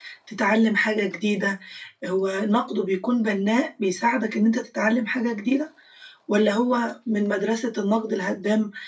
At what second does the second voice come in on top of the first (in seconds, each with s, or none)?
none